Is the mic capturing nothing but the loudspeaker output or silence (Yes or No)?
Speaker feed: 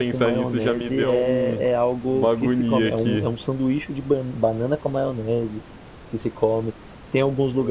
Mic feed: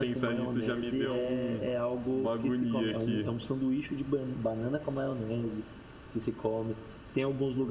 Yes